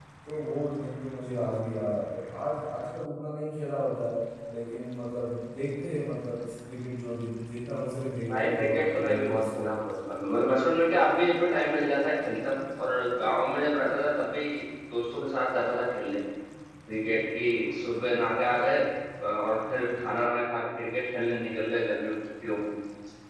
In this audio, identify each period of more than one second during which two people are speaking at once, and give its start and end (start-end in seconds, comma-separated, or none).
8.4-9.6